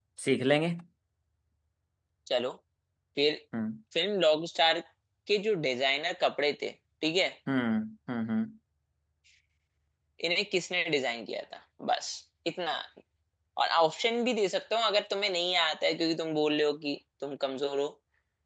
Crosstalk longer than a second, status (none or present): none